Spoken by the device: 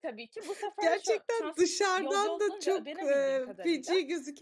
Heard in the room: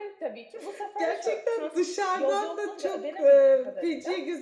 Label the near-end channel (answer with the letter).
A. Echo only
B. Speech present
A